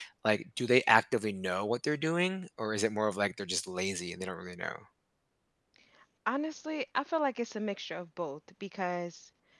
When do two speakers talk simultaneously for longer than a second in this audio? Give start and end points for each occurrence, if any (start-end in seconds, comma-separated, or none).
none